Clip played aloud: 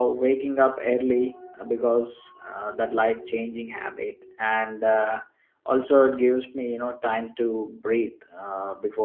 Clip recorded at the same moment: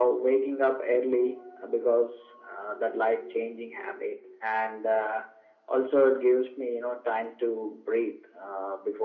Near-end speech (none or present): none